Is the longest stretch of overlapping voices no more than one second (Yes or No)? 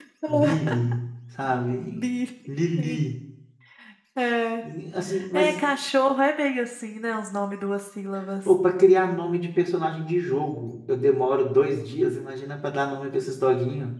Yes